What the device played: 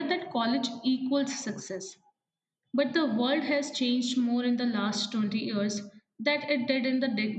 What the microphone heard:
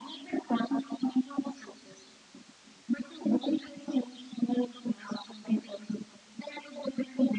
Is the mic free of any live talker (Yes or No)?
Yes